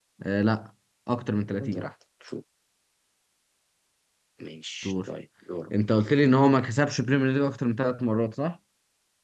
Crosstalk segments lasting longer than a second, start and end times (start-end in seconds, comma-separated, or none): none